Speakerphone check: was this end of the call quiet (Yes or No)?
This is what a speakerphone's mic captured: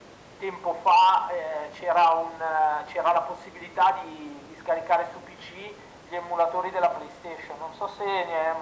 Yes